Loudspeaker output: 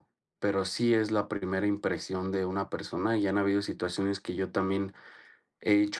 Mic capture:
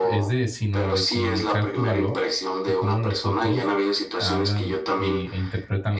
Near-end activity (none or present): present